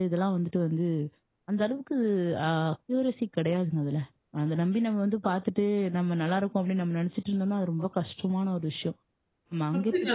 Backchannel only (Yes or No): No